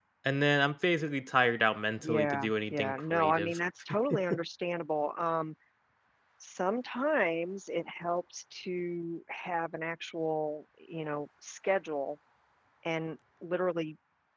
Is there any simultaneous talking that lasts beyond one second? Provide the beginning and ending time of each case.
2.0-3.6

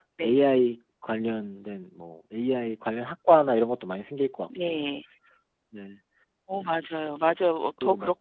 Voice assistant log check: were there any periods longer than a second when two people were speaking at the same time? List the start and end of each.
none

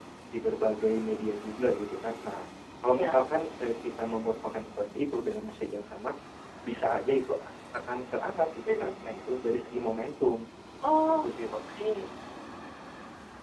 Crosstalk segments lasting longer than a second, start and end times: none

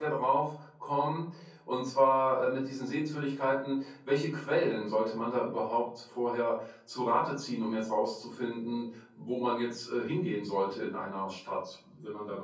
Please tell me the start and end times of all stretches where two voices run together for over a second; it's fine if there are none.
none

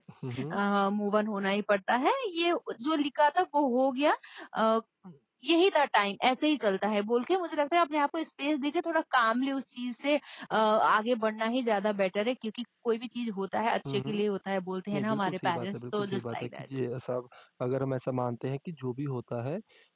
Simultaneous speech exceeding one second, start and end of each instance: 14.9-16.7

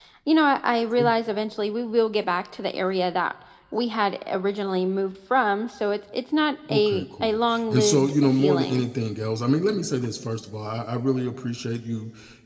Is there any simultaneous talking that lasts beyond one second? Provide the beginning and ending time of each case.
6.7-8.8

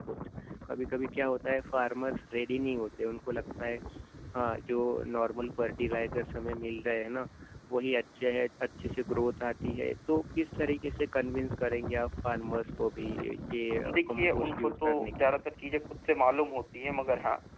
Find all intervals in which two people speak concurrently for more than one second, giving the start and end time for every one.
13.9-15.4

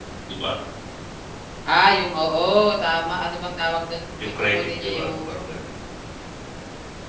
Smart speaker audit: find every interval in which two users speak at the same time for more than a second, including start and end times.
4.2-5.4

